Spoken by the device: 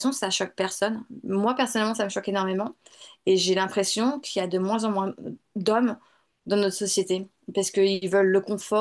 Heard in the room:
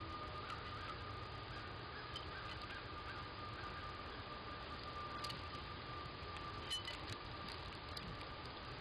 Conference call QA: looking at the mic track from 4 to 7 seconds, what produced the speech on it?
neither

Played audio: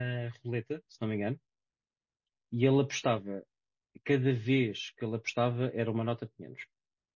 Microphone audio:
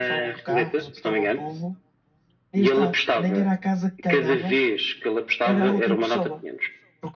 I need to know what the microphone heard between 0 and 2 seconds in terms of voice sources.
both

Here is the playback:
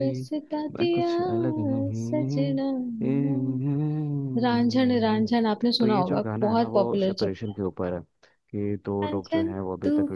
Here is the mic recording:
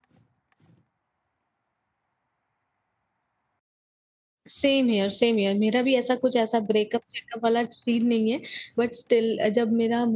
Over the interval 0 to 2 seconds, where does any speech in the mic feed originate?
neither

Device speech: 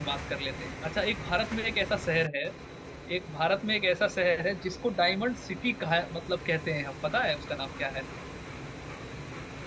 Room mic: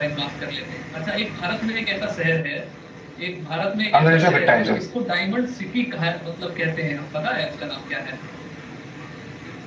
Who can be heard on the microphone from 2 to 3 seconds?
echo only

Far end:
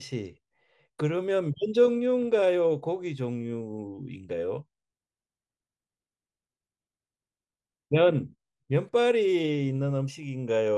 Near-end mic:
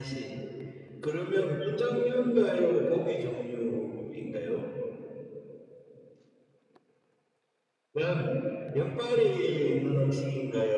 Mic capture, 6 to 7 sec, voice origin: neither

